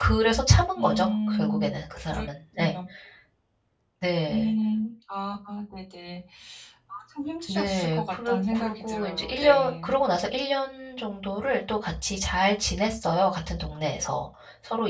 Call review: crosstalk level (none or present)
present